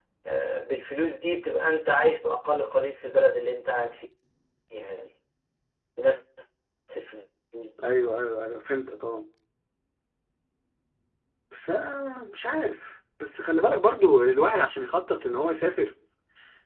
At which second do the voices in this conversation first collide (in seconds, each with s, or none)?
none